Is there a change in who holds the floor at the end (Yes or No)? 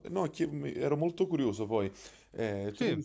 No